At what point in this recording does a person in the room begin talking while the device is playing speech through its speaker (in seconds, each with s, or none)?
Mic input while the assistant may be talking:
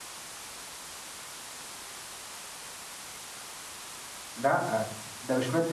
4.4 s